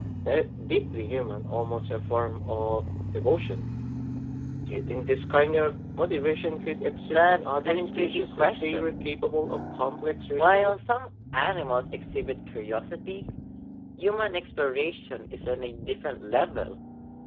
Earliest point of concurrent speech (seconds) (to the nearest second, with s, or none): 7 s